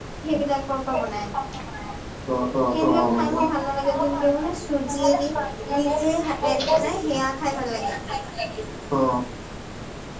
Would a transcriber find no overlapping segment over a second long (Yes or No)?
No